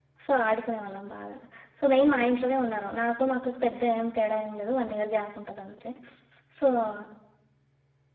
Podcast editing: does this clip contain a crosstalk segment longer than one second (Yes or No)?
No